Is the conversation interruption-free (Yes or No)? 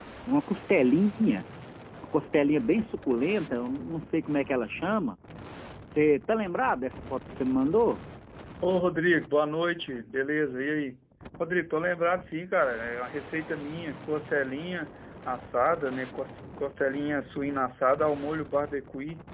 Yes